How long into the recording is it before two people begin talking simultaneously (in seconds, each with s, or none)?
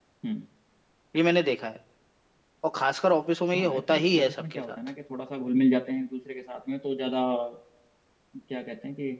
3.5 s